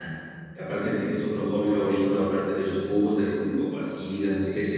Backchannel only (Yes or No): No